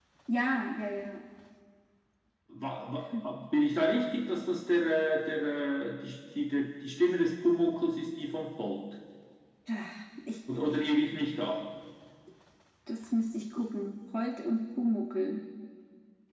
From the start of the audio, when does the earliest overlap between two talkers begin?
none

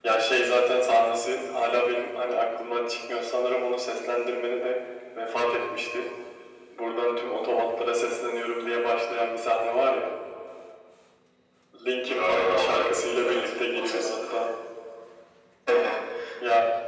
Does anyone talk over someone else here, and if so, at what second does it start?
12.1 s

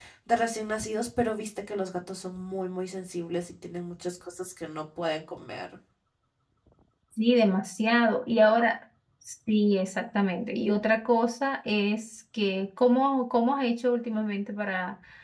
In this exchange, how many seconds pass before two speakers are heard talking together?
none

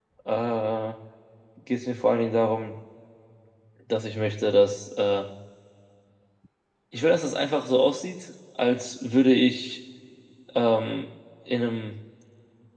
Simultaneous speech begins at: none

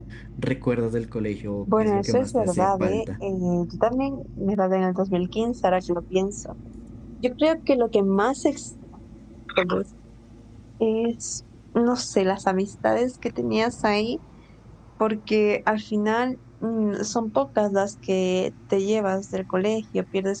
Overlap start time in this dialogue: 1.7 s

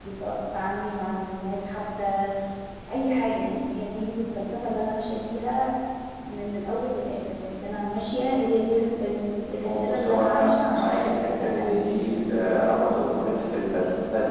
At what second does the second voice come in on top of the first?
9.6 s

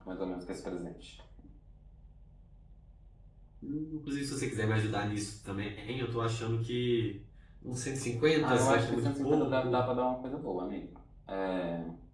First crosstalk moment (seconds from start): 8.4 s

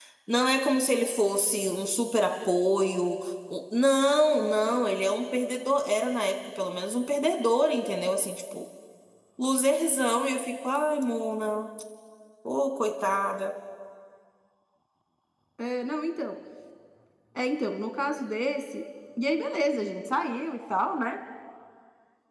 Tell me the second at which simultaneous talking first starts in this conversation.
none

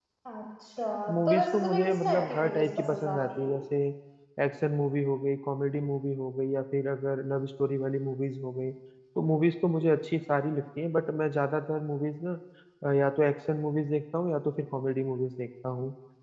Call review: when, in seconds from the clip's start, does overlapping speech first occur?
1.2 s

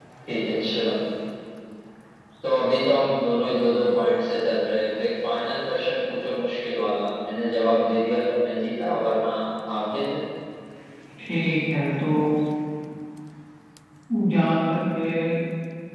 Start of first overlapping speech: none

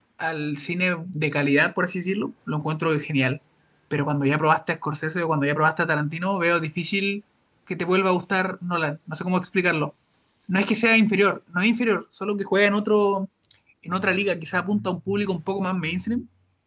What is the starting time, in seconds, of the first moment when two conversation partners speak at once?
none

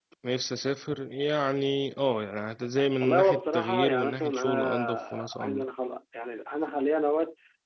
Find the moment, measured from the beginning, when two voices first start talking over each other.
3.0 s

